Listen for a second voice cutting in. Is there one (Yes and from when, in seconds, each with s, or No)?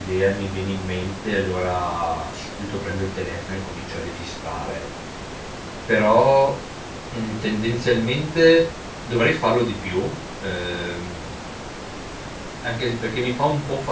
No